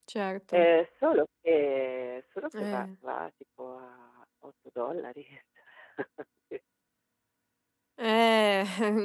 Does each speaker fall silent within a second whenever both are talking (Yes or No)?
Yes